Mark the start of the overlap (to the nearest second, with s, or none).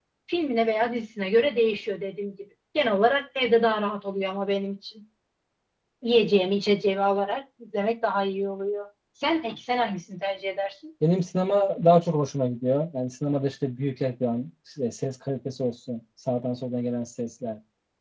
none